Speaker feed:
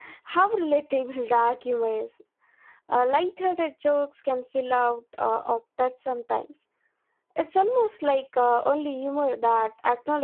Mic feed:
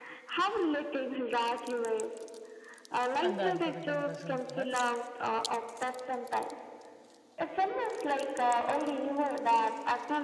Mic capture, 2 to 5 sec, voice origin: both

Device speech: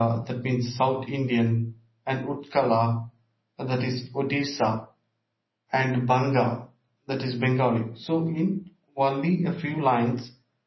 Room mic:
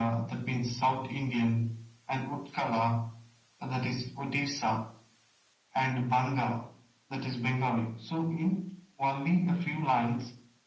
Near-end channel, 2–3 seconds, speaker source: echo only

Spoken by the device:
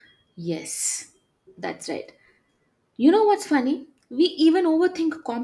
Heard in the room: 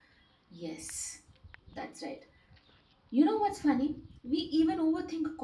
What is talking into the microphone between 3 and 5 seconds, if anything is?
echo only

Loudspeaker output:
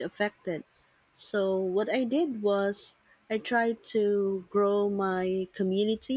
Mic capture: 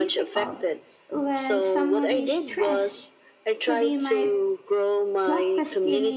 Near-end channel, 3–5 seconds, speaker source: both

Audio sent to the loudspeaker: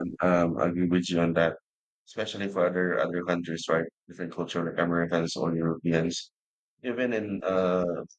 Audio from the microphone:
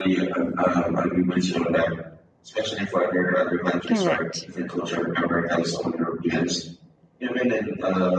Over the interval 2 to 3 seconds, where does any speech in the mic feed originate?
echo only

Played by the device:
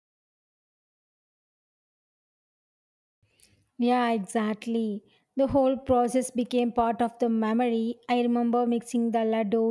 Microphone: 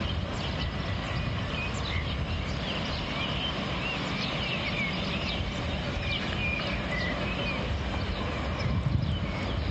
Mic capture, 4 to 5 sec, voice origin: neither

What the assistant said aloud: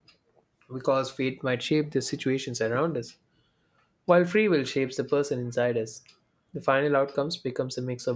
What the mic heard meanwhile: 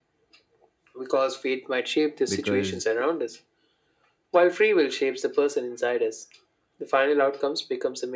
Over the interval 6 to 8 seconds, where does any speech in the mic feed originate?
echo only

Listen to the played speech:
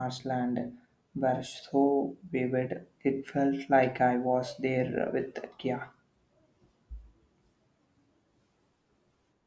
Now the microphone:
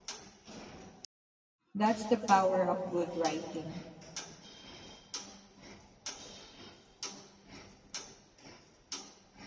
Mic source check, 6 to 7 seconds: neither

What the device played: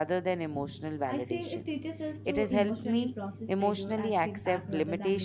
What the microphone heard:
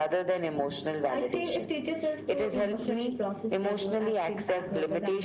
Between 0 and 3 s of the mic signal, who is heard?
echo only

